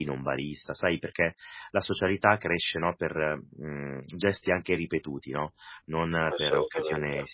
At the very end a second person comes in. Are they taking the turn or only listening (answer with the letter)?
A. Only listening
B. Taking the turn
A